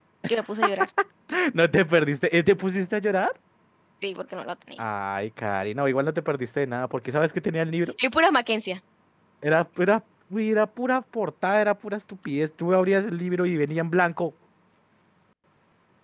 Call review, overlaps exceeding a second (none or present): none